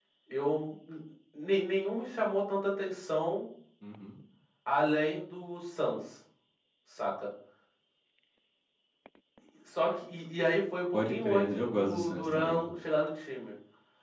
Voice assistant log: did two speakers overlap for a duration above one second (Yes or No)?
Yes